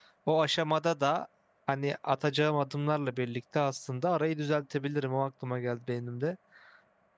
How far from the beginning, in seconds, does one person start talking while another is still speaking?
none

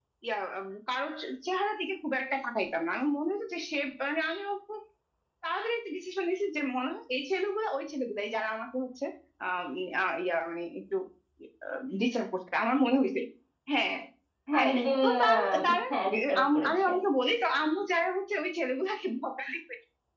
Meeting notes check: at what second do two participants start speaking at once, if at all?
14.6 s

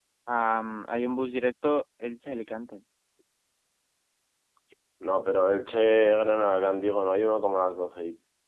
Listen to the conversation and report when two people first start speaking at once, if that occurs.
none

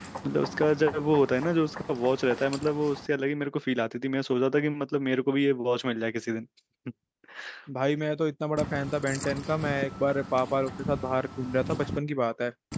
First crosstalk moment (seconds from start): none

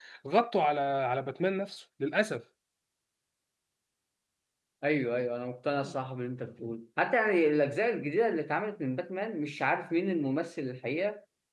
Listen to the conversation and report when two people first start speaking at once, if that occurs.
none

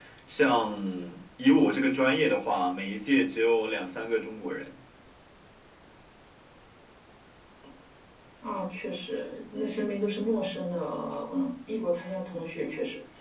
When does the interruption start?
none

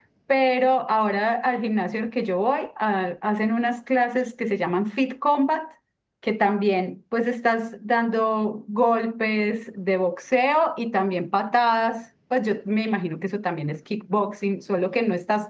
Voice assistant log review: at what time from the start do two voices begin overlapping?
none

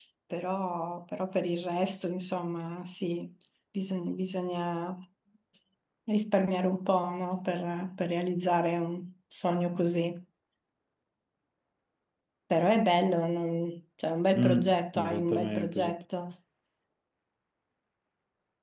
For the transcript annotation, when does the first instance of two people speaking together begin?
14.3 s

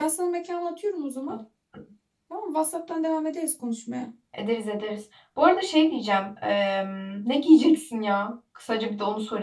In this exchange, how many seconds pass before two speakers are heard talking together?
none

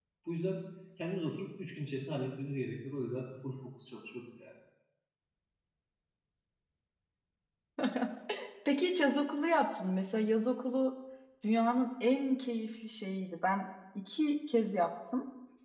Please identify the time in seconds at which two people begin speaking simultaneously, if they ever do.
none

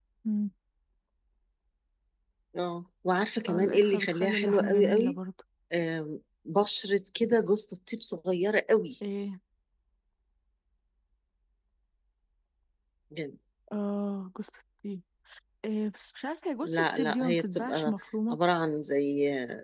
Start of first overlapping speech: 3.5 s

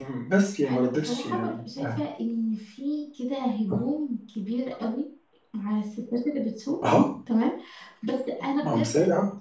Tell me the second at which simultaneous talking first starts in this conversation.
0.7 s

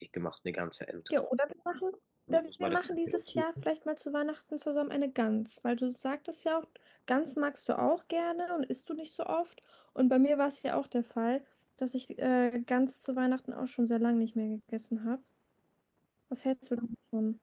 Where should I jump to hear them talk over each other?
2.3 s

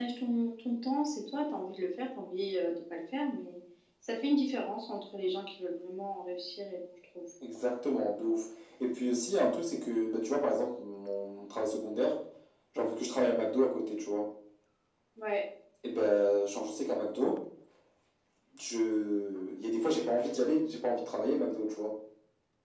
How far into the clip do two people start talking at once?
none

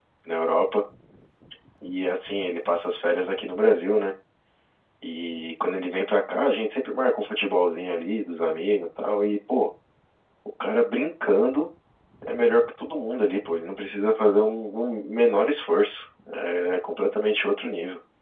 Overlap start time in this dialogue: none

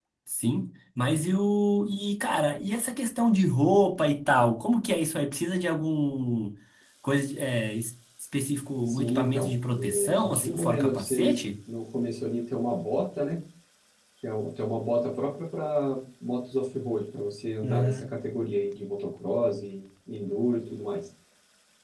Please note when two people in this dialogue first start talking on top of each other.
8.8 s

